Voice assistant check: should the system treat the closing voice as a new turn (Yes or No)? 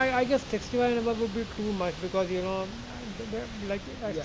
No